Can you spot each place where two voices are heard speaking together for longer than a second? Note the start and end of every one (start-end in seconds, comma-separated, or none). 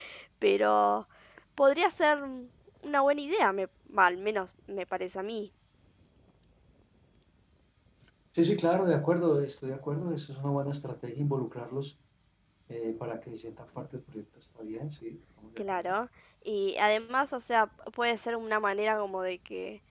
none